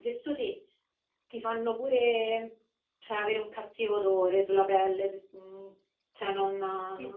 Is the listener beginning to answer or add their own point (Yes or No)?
Yes